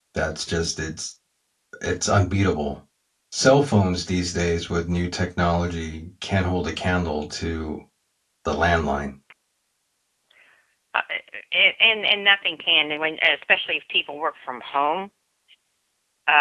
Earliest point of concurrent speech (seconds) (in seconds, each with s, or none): none